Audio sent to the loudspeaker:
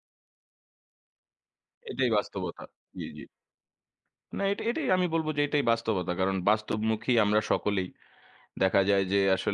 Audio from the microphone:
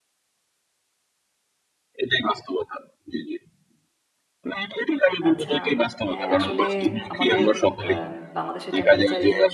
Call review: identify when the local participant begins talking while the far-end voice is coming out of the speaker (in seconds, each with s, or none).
5.3 s